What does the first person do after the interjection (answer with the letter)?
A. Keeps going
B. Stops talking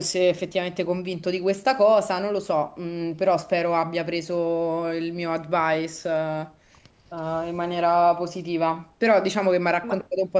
A